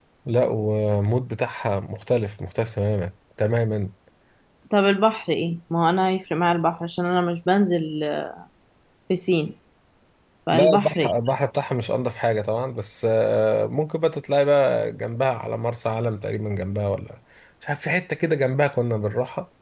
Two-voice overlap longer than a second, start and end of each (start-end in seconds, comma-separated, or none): none